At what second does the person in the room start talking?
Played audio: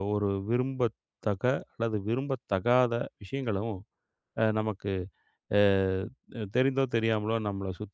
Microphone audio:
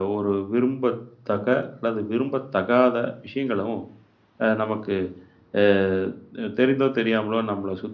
none

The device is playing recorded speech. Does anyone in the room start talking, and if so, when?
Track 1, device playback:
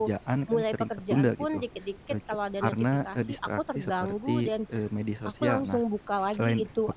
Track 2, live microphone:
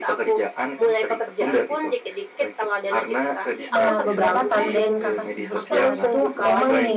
4 s

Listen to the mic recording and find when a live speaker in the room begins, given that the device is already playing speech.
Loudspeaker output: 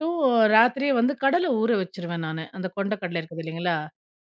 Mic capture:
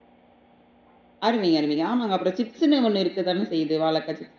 1 s

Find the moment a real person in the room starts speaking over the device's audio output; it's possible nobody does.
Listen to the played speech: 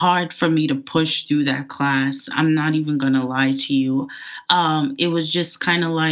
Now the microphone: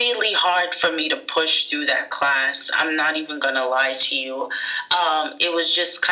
none

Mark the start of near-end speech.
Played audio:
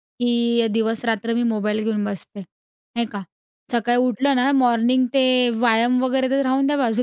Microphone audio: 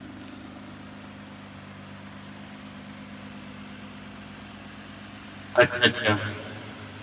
6 s

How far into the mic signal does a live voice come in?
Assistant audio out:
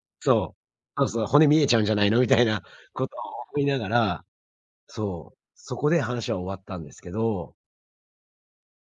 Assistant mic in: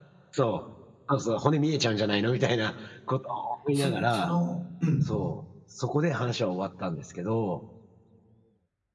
4 s

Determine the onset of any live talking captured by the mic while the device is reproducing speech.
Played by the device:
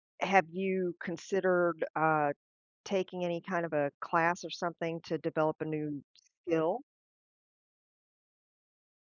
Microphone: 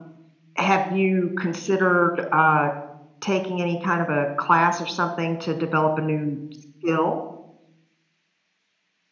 none

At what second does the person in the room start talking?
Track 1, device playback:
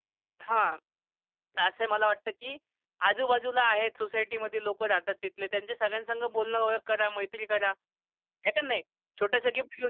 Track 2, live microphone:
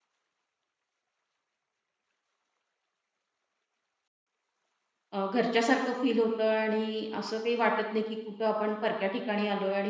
5 s

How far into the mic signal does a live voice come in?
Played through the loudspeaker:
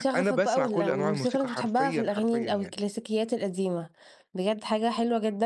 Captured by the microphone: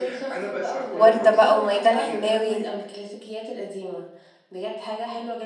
1 s

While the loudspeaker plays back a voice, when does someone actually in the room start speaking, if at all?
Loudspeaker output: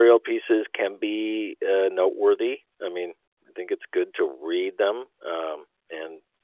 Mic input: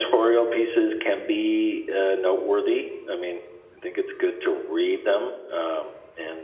none

